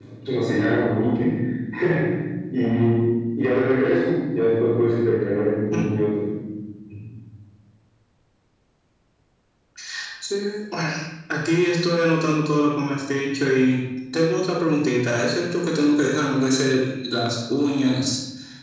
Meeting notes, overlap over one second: none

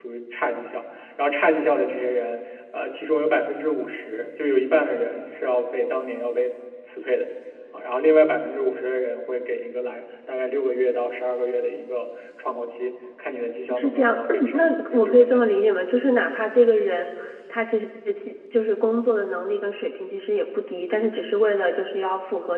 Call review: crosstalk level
present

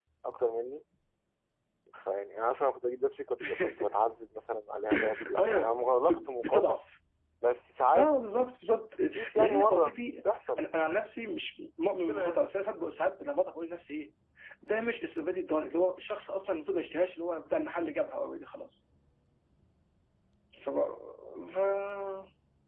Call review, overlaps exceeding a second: present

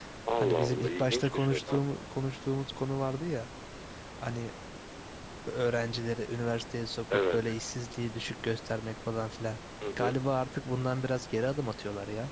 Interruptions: present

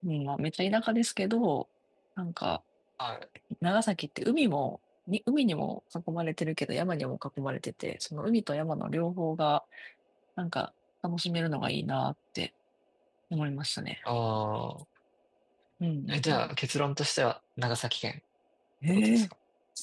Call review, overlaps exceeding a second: none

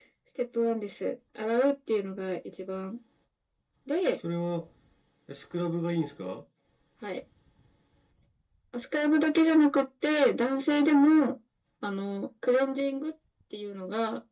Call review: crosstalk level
none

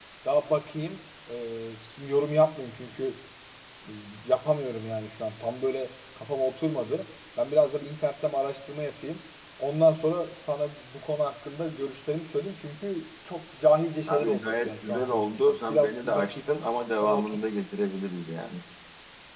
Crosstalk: present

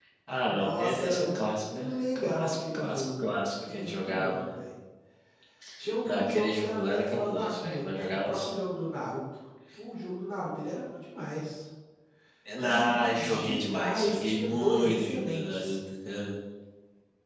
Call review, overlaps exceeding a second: present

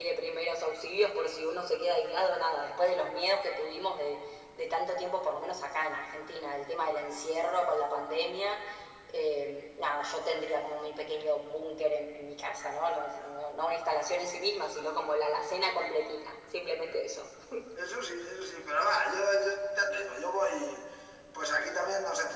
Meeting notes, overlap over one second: none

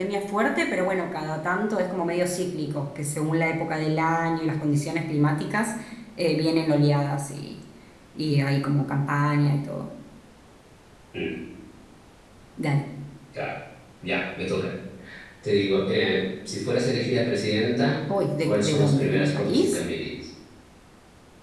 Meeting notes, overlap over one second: present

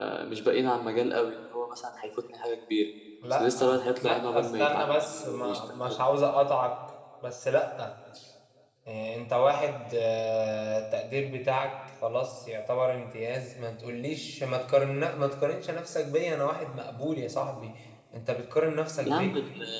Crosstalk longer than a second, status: present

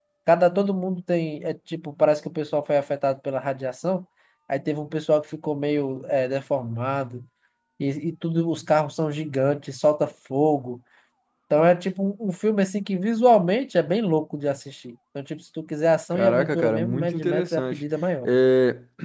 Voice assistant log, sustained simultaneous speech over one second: present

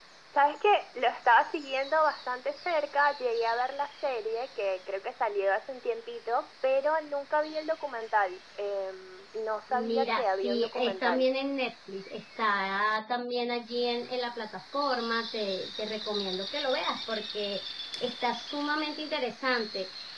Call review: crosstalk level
present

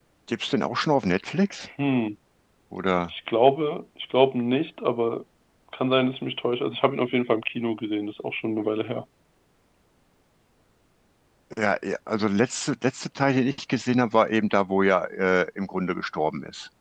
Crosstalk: none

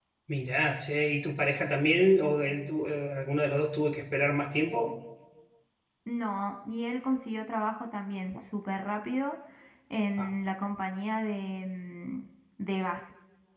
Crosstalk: none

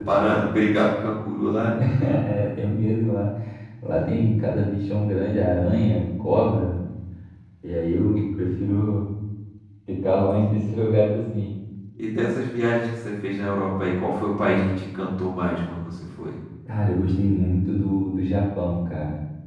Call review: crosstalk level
none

